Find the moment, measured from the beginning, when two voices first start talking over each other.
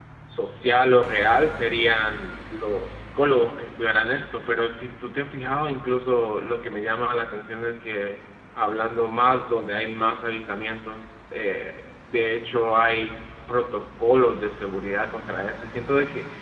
none

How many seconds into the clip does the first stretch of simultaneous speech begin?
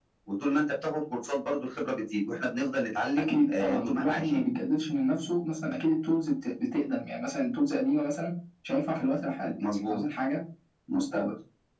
3.2 s

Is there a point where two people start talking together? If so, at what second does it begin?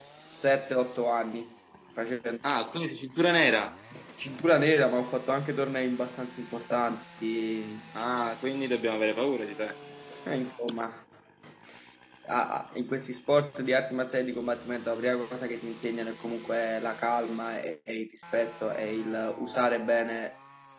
none

